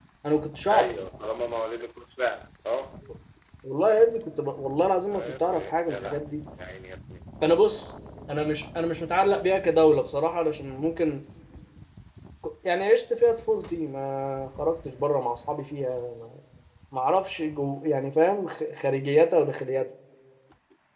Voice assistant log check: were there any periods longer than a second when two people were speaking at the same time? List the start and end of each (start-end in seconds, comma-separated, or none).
5.1-6.4